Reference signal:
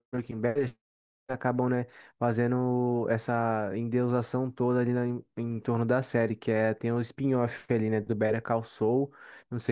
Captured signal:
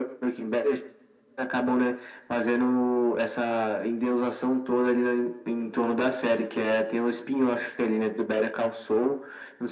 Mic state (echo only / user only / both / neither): echo only